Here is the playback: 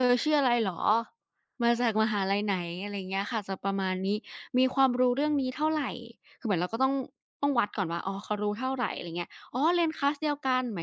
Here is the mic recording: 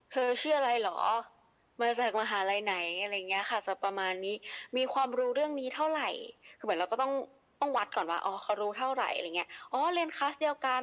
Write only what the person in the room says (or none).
none